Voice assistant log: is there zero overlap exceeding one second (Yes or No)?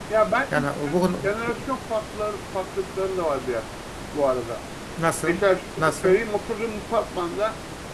Yes